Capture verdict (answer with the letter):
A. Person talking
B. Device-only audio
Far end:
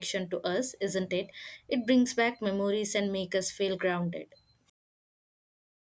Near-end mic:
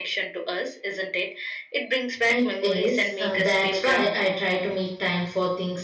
A